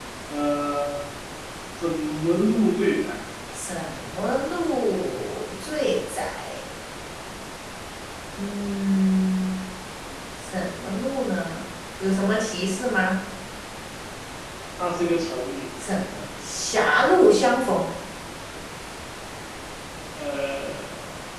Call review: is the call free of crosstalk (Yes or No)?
Yes